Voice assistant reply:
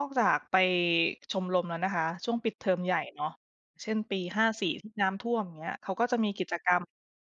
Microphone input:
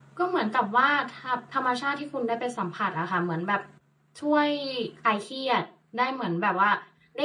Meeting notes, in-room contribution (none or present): present